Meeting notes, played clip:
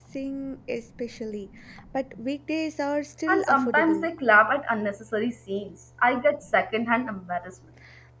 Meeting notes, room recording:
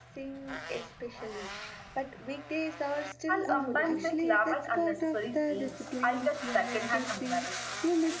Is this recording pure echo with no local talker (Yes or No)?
No